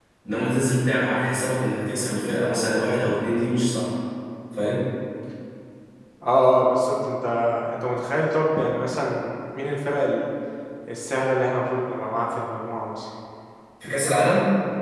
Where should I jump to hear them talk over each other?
none

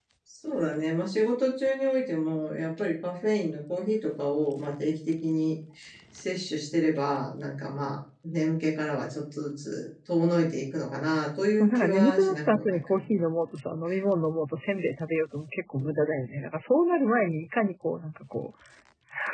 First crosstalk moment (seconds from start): 11.6 s

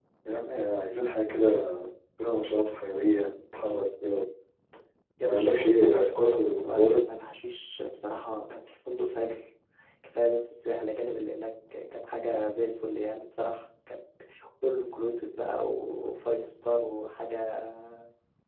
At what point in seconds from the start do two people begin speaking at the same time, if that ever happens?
5.2 s

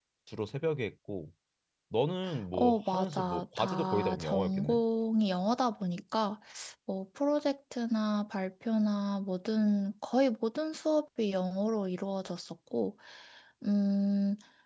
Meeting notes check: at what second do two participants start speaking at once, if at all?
2.5 s

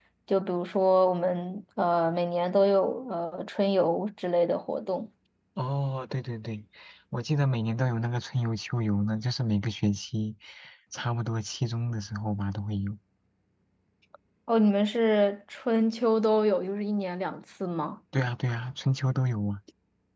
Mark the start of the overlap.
none

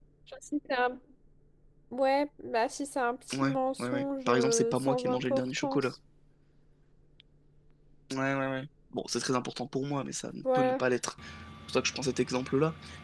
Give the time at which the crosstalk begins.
3.3 s

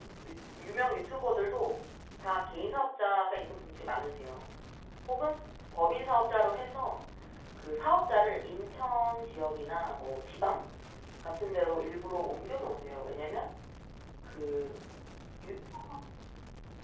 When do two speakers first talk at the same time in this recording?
none

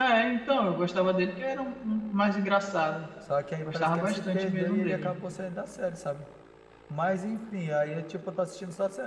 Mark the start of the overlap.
3.6 s

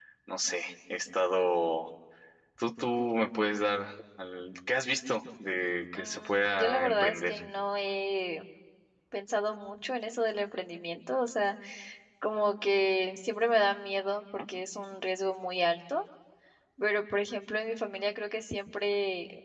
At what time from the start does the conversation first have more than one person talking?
6.0 s

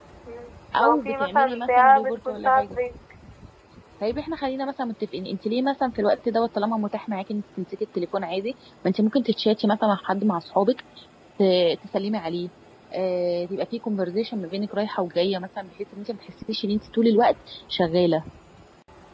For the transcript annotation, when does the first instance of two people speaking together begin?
0.8 s

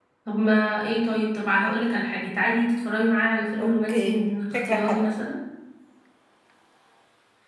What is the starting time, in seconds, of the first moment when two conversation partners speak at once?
3.6 s

